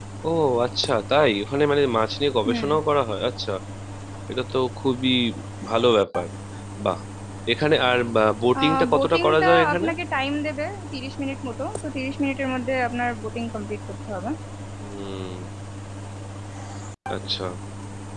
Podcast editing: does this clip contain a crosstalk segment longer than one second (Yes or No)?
Yes